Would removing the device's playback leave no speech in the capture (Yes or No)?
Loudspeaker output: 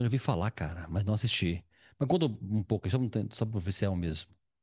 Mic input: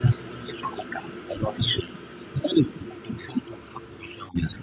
Yes